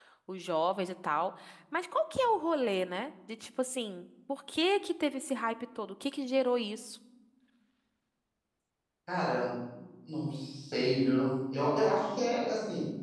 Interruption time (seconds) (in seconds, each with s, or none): none